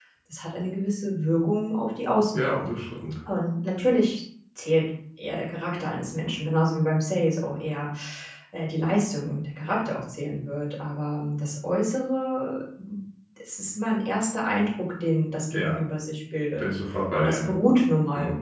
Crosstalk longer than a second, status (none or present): none